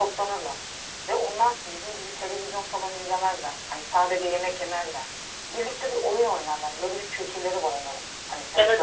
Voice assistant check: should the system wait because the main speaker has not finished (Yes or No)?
No